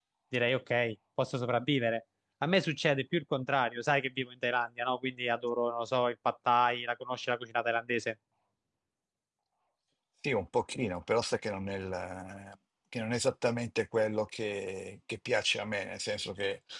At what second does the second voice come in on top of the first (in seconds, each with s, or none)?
none